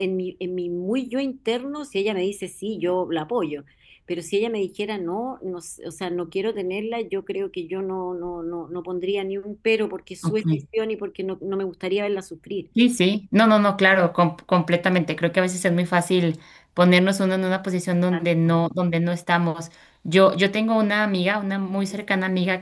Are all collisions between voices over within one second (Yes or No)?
Yes